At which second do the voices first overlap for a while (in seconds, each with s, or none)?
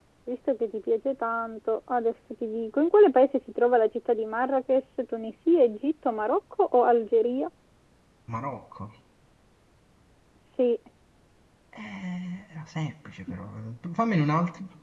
none